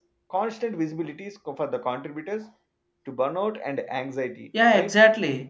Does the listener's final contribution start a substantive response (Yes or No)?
Yes